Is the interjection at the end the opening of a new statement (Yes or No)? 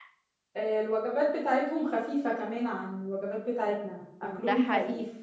Yes